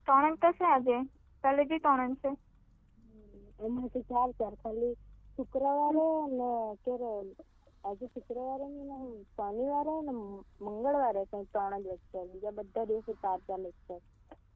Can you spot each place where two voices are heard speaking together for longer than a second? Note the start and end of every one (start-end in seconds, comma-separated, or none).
none